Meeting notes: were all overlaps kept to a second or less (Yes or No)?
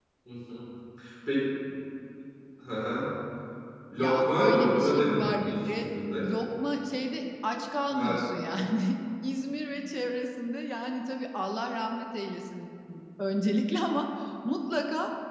No